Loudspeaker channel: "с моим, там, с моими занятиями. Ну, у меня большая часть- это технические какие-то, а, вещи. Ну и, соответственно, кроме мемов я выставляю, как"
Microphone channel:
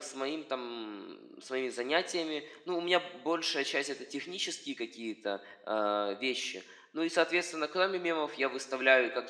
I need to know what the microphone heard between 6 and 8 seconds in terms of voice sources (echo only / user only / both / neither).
echo only